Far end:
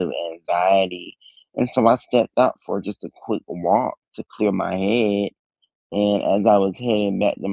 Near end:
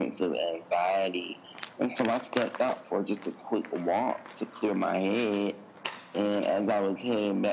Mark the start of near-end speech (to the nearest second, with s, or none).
none